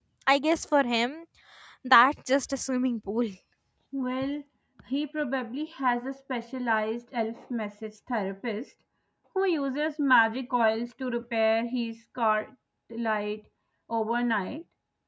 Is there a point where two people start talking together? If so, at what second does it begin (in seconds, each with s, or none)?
none